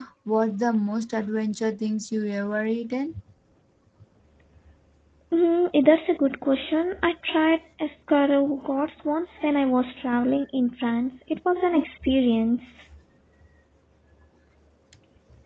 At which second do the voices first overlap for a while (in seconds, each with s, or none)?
none